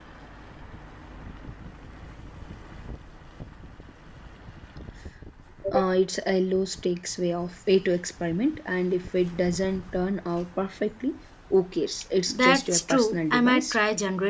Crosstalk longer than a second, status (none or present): present